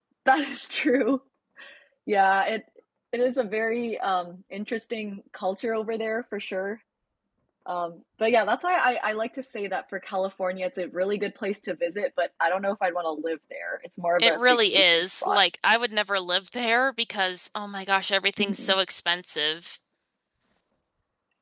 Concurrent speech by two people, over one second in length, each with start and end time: 14.2-15.4

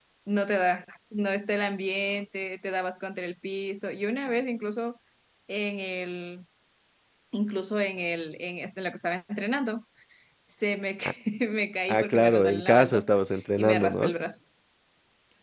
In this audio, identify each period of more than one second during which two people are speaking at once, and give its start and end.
11.9-13.2

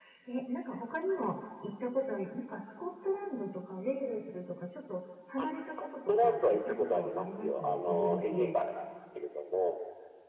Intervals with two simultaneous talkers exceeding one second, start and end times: 5.4-8.6

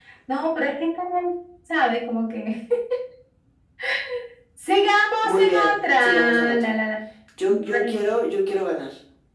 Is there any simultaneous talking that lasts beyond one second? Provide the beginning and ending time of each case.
5.2-6.7

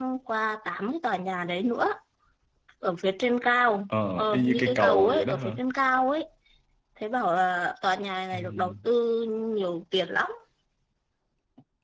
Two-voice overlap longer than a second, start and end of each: 4.2-5.6

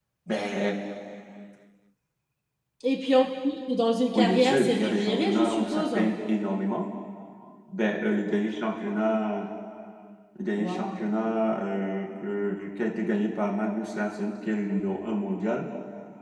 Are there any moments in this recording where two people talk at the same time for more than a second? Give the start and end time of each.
4.1-5.8

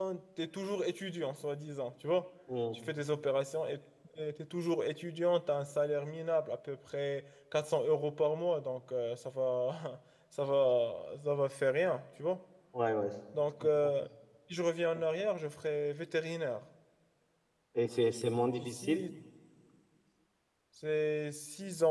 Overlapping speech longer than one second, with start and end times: none

